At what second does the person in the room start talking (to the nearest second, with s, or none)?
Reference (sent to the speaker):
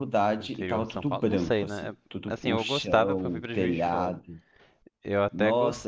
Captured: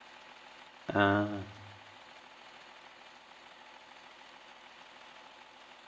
1 s